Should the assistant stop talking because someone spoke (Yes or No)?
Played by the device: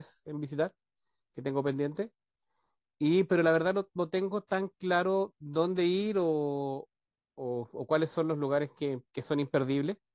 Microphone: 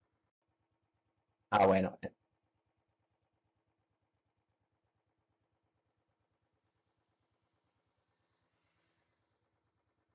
Yes